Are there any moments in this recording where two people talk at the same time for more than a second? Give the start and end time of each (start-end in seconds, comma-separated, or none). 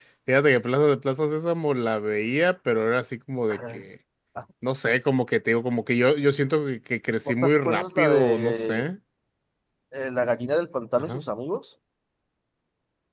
7.4-8.8